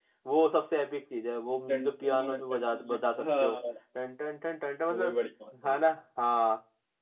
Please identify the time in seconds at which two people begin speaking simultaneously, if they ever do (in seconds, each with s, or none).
1.7 s